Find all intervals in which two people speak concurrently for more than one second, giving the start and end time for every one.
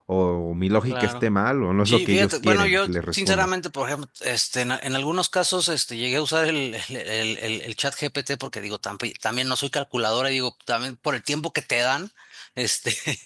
1.8-3.5

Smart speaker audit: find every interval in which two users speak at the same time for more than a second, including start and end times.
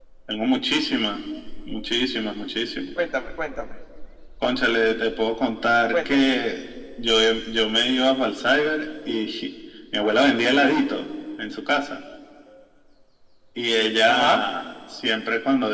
none

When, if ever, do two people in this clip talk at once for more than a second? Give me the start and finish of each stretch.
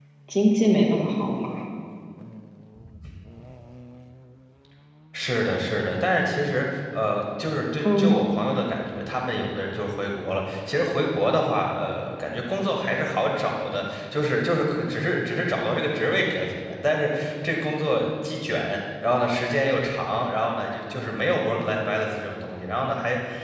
none

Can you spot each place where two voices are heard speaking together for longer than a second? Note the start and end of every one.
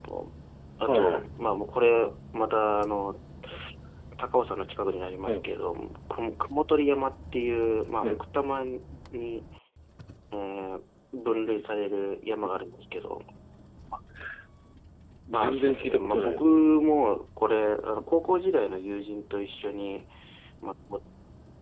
15.3-16.6

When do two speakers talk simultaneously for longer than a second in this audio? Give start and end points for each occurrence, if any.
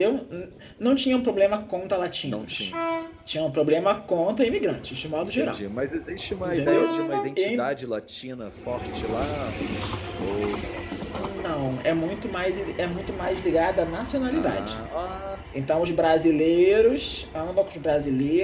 none

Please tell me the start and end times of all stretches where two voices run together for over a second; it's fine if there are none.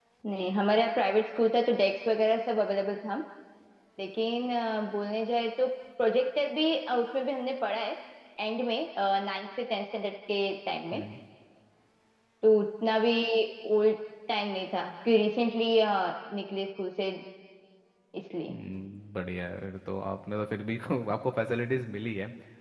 none

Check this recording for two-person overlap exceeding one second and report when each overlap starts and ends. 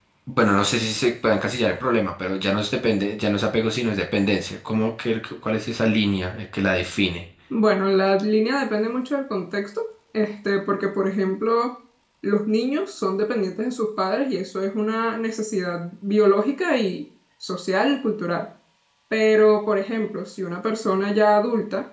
none

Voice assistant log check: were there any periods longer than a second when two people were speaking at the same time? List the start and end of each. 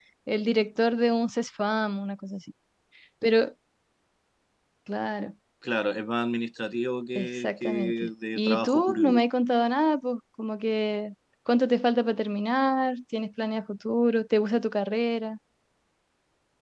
7.2-9.2

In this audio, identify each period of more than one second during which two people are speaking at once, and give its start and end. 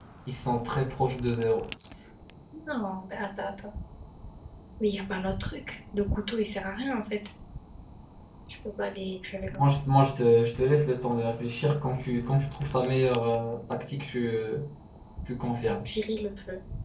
none

